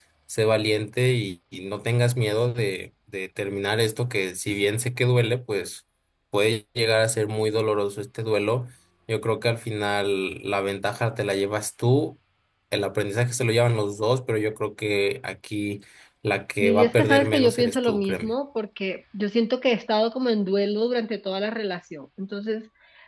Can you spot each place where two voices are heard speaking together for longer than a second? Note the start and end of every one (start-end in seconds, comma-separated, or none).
16.6-18.3